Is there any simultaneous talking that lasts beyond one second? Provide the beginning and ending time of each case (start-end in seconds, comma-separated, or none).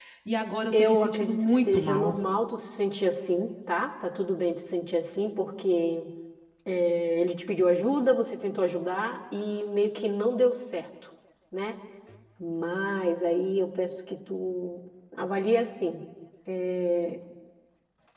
0.7-2.2